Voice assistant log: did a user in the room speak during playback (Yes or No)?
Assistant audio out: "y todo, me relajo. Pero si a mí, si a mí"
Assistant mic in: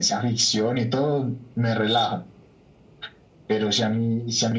No